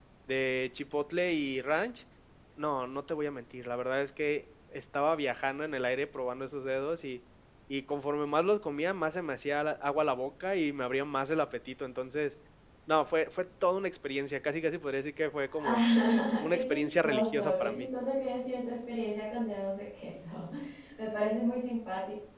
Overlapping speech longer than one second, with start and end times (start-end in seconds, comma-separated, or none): 16.5-17.8